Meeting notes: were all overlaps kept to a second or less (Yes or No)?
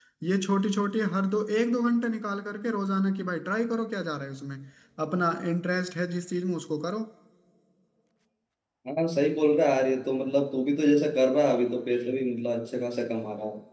Yes